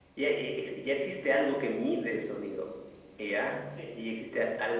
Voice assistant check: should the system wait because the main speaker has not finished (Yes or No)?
Yes